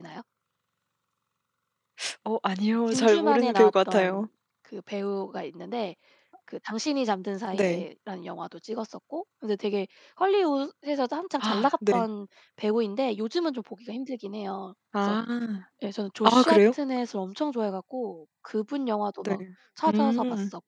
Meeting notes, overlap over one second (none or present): present